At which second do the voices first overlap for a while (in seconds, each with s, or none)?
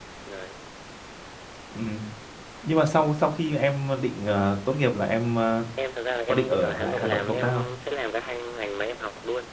6.3 s